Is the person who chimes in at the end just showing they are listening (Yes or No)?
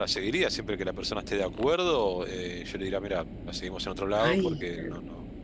Yes